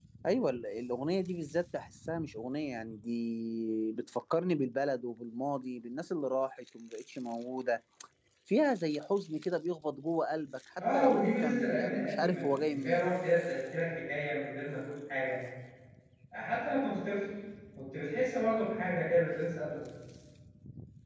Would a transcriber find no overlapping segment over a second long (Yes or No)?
No